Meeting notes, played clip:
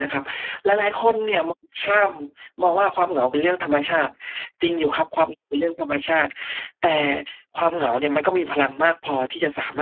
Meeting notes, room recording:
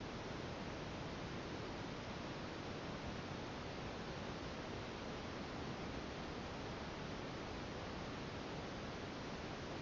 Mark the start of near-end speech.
none

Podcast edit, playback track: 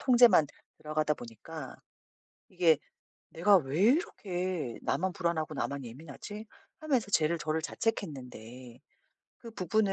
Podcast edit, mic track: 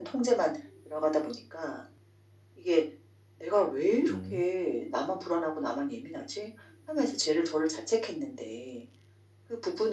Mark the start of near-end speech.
4.1 s

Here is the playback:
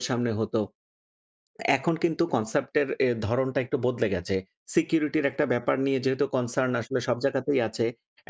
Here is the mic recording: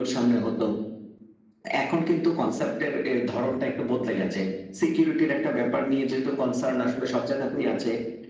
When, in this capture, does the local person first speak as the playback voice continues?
none

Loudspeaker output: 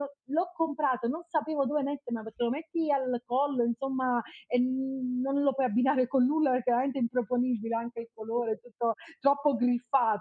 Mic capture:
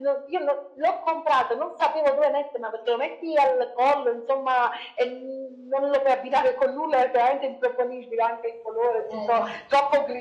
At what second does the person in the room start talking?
9.0 s

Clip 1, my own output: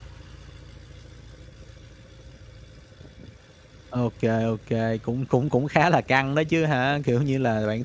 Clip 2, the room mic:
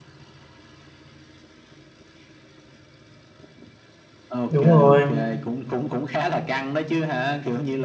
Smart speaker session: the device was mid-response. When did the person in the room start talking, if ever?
4.5 s

